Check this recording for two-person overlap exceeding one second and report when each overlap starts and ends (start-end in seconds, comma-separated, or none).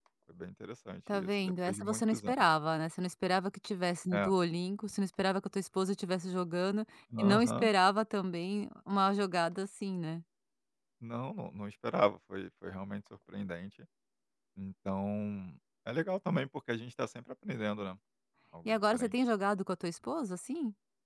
1.1-2.3